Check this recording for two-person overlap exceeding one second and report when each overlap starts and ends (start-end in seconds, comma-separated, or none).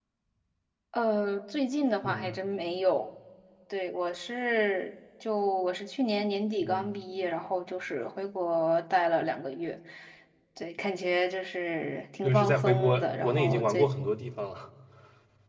12.2-13.9